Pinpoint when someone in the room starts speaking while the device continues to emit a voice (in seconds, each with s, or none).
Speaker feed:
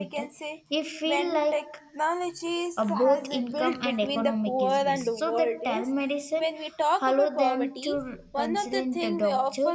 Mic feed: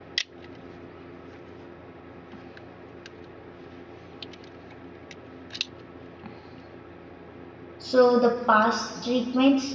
7.8 s